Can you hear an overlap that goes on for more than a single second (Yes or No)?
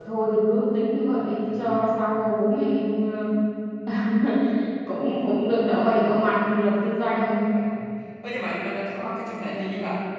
No